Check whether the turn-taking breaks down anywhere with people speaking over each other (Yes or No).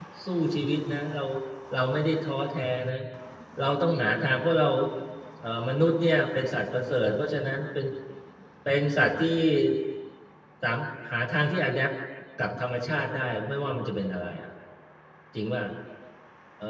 No